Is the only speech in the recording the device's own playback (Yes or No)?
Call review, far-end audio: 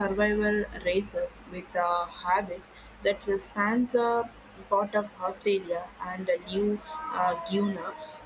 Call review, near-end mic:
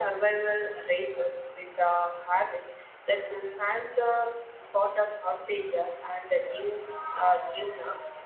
Yes